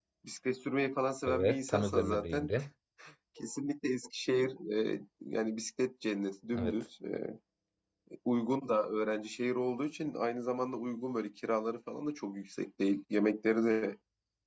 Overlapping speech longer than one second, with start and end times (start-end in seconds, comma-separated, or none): 1.3-2.5